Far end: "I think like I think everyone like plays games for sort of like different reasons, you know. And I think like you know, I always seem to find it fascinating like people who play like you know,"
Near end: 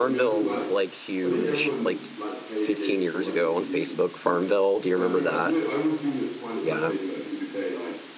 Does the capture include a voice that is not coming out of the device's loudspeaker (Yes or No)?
Yes